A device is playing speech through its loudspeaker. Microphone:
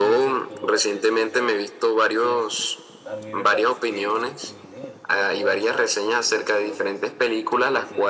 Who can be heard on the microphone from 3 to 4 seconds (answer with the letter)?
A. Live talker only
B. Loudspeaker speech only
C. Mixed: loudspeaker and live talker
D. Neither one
C